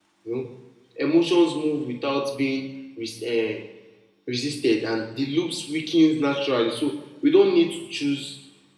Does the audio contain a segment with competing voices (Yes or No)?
No